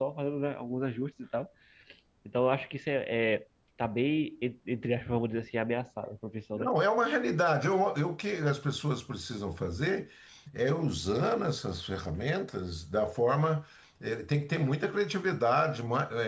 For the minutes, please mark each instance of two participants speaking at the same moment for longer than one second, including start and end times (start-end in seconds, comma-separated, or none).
none